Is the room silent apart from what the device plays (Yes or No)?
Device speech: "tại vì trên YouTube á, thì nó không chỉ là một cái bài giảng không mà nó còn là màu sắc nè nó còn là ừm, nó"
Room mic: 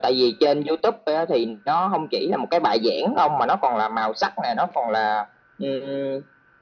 Yes